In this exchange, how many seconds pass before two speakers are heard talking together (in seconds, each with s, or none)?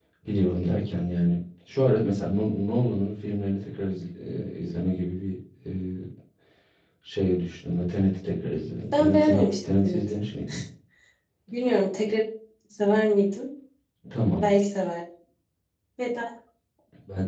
8.8 s